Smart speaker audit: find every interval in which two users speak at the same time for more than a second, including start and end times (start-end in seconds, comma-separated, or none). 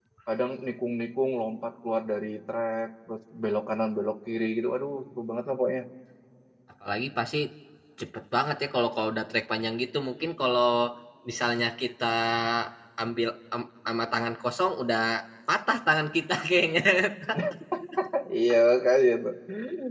none